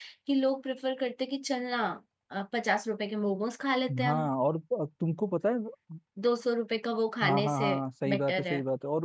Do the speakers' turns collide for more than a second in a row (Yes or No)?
No